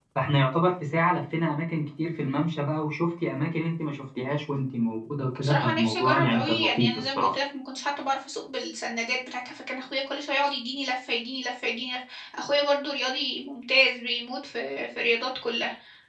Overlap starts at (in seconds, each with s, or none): 5.4 s